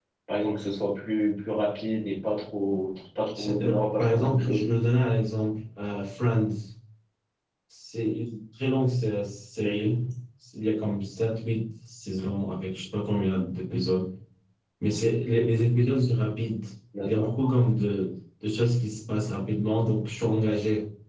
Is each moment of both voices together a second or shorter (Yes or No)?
No